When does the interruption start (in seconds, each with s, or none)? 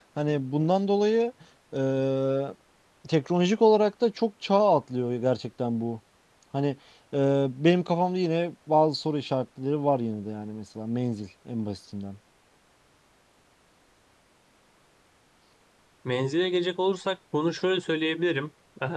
none